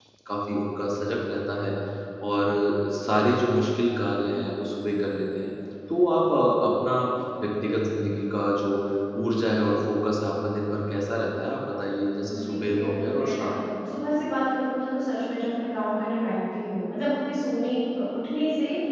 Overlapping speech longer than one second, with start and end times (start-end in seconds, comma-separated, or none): 12.2-13.6